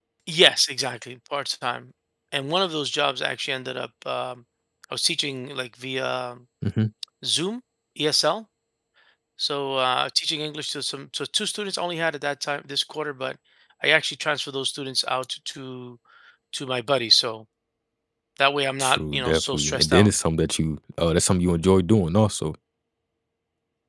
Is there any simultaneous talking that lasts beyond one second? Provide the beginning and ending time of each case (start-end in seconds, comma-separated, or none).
18.8-20.1